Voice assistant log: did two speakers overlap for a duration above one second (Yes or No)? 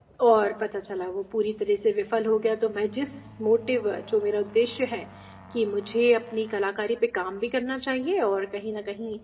No